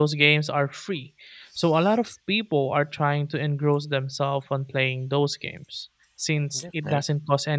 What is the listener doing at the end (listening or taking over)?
listening